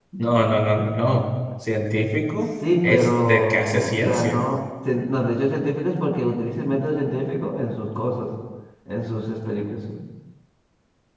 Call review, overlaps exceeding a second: present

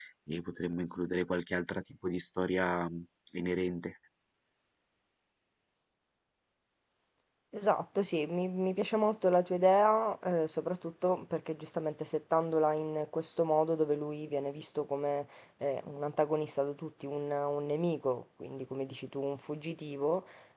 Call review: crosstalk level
none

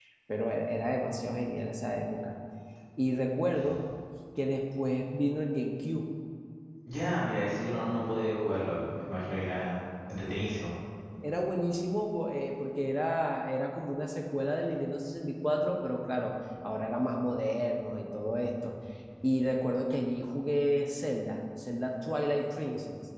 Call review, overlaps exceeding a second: none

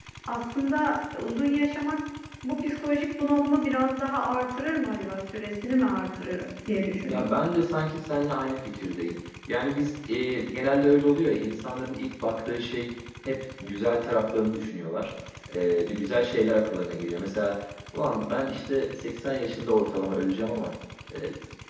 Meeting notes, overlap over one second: none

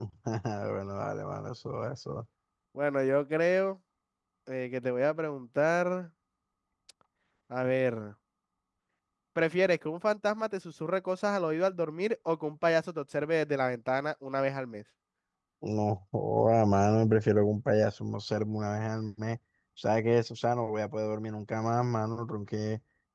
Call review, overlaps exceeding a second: none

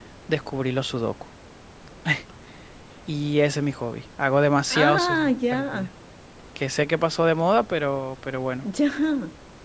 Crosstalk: present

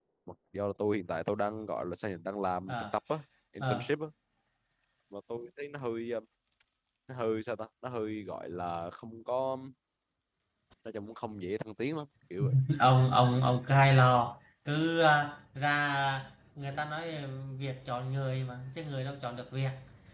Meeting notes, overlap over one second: none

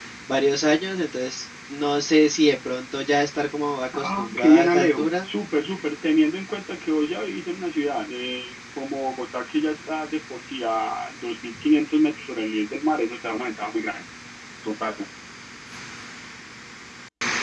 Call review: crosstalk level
present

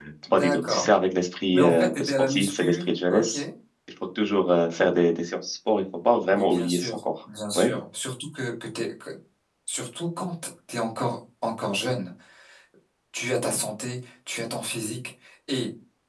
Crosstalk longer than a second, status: present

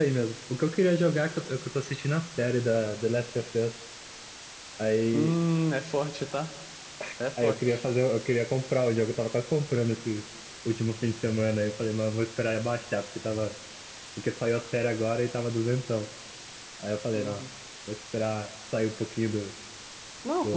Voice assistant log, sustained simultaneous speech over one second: none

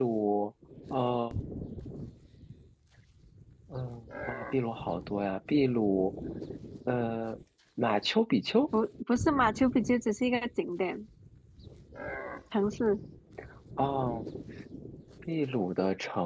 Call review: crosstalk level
none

